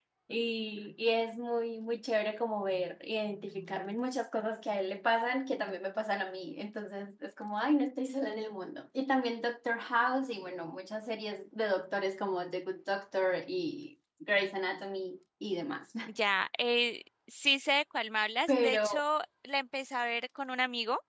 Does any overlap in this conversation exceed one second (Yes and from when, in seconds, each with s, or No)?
No